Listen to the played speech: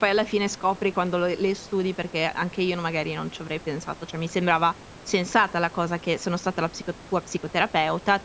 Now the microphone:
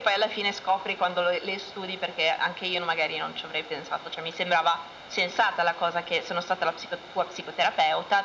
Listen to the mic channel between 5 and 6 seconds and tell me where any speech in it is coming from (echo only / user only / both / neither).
echo only